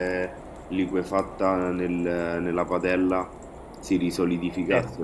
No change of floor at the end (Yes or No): Yes